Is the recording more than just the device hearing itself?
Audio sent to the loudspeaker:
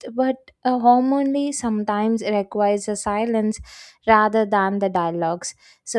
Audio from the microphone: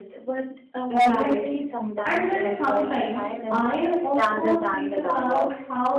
Yes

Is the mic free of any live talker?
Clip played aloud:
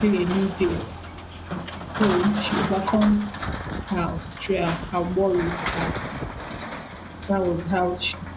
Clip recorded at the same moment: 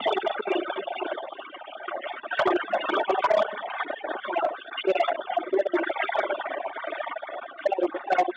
Yes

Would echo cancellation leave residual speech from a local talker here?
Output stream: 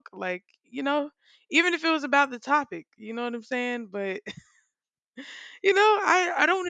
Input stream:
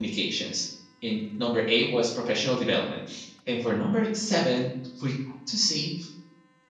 Yes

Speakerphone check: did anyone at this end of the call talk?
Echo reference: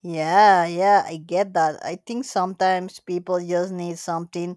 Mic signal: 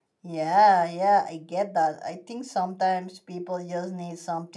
No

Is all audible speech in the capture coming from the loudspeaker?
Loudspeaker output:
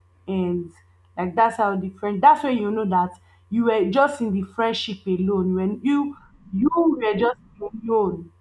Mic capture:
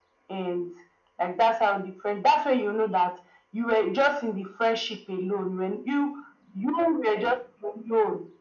Yes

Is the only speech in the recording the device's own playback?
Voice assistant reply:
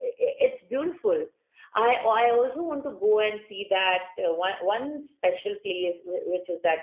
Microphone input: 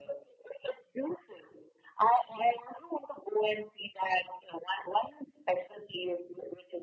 Yes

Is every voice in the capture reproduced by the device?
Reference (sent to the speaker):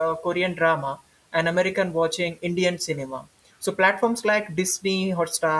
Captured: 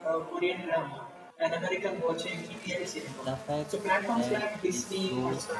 No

